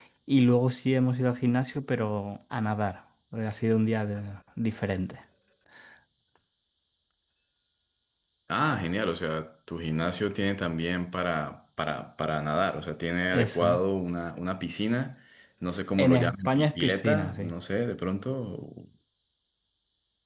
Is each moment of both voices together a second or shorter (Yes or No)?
No